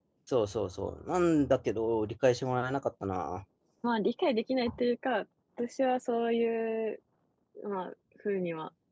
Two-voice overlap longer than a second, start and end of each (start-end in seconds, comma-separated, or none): none